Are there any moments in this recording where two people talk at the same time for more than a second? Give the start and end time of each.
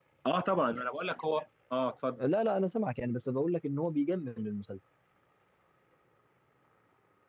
none

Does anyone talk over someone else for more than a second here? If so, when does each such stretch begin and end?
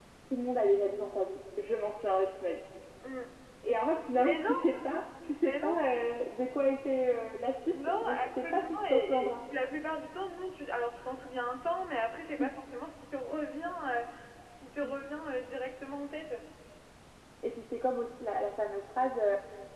7.7-9.4

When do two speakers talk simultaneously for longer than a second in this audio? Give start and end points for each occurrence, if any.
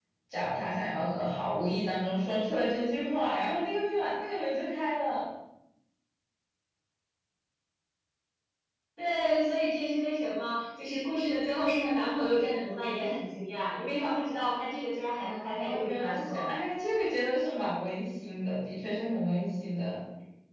15.2-16.5

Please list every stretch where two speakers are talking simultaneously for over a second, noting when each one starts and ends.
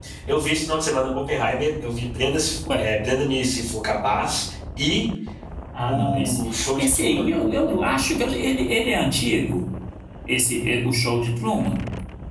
none

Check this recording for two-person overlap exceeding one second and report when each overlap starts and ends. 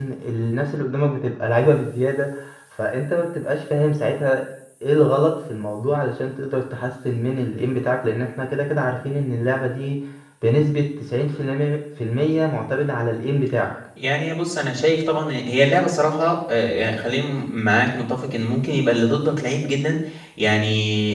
none

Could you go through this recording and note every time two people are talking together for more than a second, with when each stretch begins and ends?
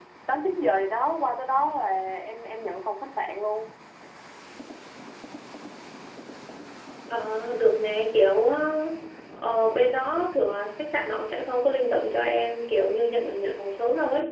none

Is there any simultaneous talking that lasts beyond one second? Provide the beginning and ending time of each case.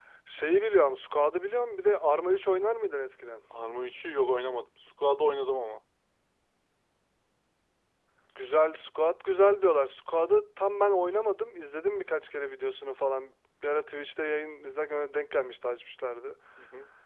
none

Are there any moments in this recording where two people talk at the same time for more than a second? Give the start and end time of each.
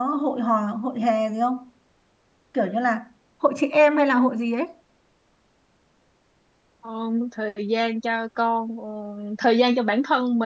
none

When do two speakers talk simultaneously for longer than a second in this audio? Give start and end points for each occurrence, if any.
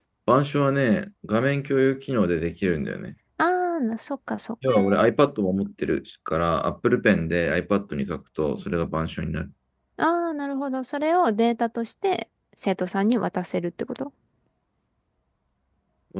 none

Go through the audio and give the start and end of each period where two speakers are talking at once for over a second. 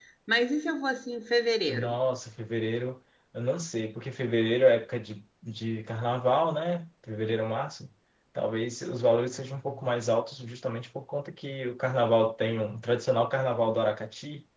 none

